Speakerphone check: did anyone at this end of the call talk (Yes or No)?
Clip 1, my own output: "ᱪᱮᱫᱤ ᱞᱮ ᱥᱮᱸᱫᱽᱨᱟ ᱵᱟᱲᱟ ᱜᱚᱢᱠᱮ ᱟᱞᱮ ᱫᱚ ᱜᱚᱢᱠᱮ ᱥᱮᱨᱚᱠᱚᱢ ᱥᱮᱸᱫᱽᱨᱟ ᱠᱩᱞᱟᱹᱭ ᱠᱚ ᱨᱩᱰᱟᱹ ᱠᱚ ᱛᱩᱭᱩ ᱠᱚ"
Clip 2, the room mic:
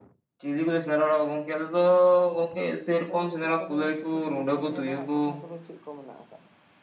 Yes